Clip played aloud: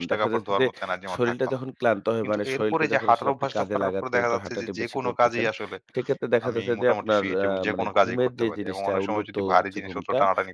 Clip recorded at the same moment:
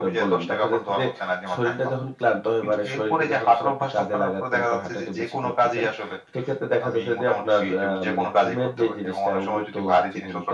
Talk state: echo only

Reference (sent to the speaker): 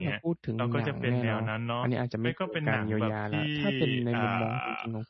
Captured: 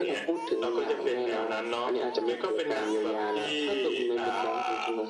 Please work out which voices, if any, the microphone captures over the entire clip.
echo only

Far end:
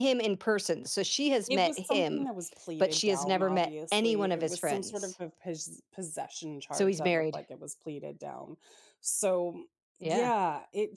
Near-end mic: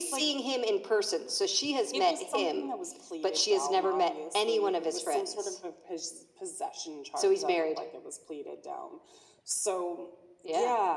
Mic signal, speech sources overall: echo only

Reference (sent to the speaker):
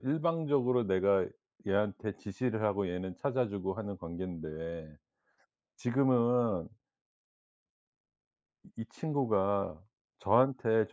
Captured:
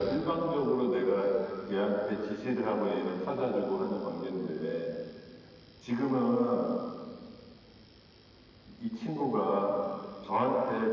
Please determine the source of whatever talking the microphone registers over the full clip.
echo only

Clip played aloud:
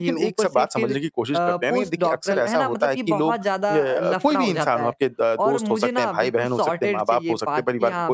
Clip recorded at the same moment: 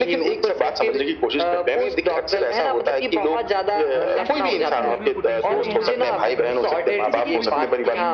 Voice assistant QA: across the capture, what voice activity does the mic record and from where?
both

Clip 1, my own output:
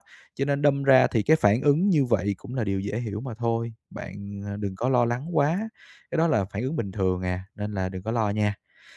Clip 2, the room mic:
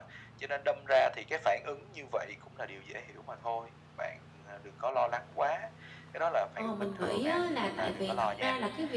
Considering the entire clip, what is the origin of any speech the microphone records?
both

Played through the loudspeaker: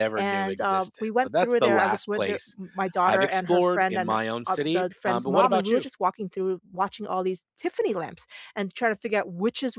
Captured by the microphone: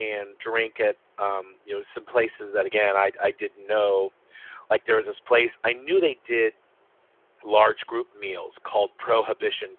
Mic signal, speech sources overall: user only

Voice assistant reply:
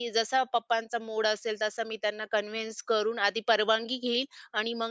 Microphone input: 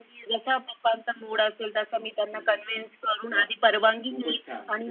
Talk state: both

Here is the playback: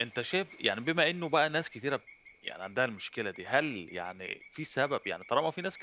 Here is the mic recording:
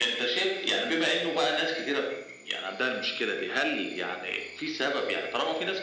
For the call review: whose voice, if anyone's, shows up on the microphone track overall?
echo only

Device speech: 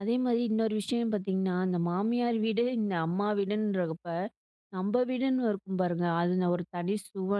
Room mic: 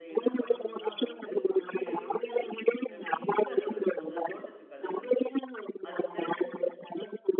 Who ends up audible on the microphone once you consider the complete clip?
both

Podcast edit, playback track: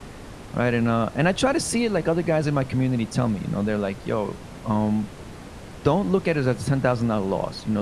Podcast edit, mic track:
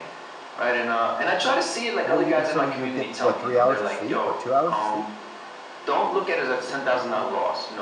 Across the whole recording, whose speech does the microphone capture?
both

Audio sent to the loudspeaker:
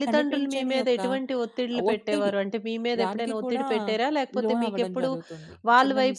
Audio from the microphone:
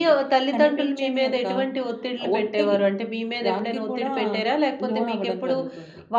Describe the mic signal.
echo only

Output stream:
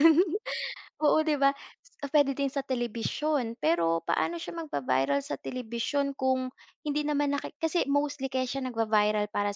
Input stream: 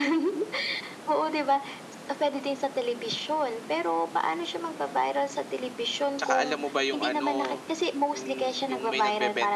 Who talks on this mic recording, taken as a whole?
both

